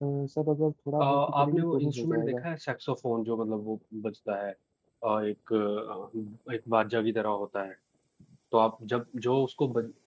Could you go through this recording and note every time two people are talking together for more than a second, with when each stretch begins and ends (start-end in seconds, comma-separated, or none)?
1.0-2.5